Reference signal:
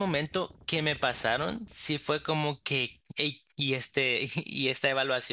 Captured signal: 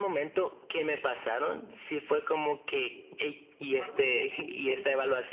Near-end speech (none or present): present